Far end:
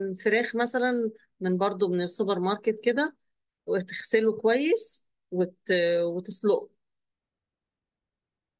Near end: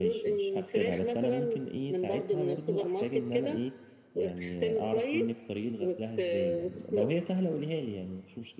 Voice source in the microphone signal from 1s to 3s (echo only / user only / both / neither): both